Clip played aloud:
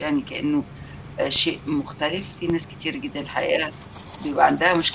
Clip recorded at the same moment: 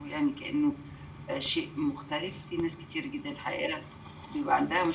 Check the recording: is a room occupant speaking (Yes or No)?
No